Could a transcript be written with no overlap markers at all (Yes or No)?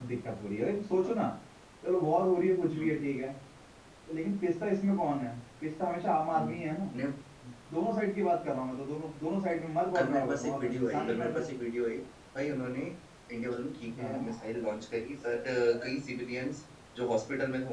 No